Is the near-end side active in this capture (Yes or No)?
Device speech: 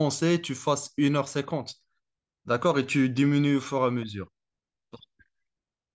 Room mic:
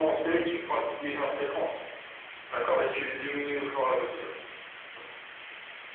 No